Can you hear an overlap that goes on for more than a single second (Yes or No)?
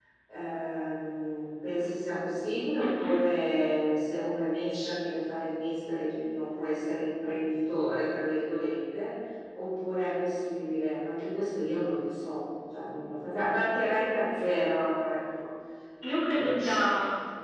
No